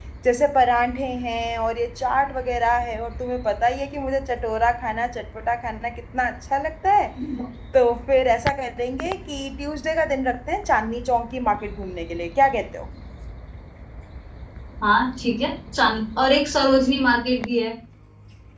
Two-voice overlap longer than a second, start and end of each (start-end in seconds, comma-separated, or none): none